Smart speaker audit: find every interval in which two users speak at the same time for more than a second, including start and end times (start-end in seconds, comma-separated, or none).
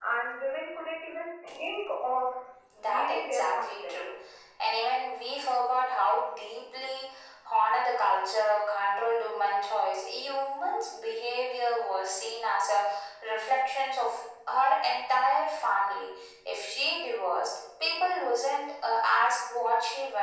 2.9-4.1